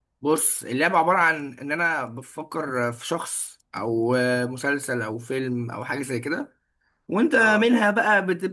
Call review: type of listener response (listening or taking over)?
listening